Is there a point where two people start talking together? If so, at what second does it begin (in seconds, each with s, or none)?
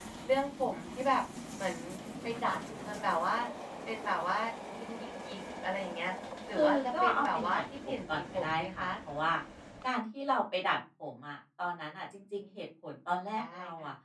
6.5 s